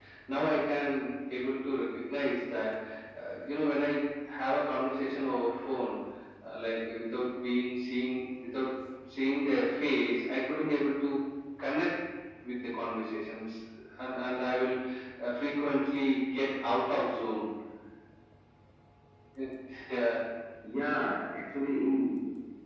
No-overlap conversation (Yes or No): Yes